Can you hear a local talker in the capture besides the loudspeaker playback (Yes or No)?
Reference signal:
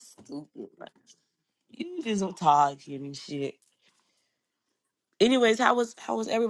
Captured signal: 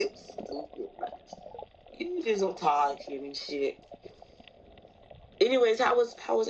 No